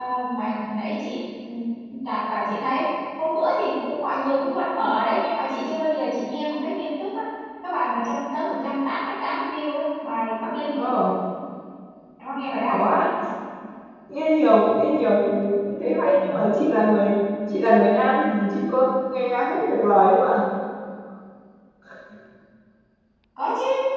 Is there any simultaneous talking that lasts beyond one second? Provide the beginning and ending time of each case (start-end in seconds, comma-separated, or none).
none